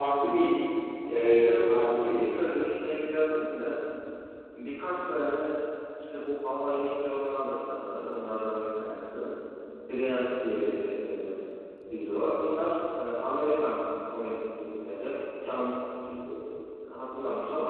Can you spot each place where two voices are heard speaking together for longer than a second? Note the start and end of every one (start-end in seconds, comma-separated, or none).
1.1-2.5